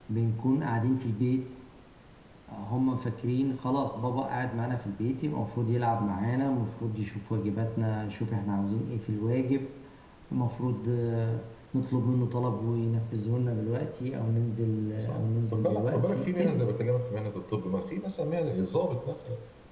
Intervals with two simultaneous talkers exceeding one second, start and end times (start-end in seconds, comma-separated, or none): 15.1-16.7